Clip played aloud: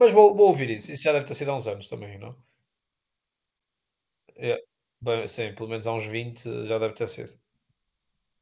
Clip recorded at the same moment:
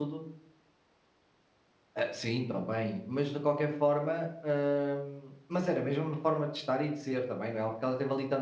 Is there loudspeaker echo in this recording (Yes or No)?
No